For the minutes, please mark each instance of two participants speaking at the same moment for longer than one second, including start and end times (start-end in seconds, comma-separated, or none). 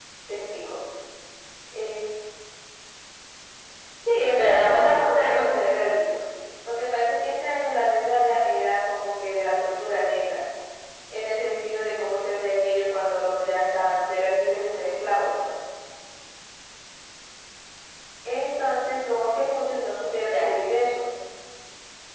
4.3-5.9